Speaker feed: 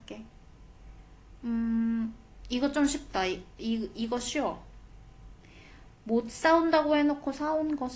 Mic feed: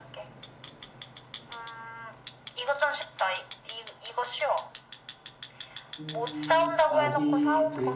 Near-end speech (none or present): present